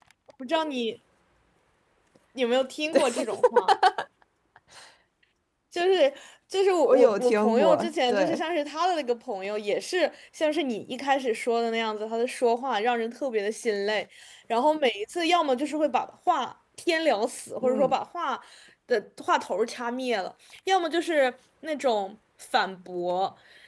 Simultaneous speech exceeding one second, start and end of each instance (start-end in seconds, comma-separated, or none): 6.9-8.4